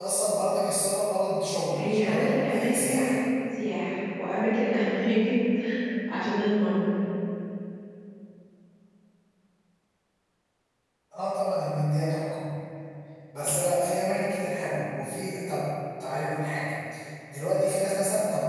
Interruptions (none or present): present